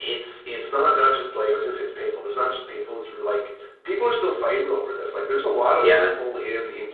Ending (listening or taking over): listening